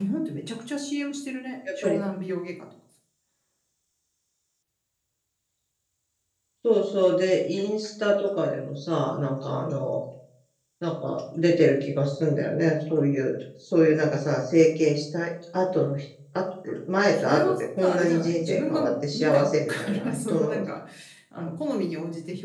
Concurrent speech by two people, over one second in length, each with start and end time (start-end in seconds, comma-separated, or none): 17.1-20.6